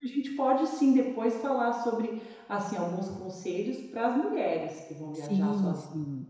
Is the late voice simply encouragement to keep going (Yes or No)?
No